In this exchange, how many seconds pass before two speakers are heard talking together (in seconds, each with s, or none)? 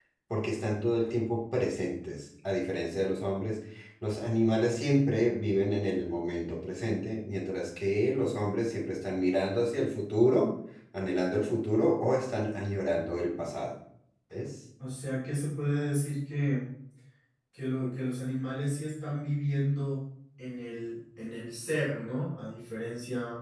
none